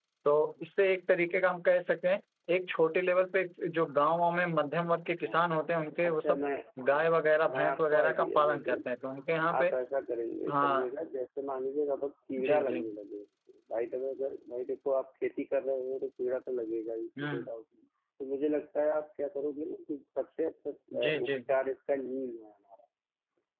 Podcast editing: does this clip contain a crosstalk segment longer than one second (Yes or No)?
Yes